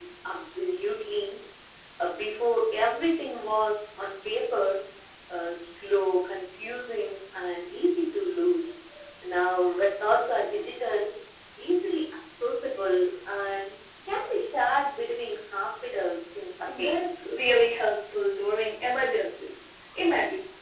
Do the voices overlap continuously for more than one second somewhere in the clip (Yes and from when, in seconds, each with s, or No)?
No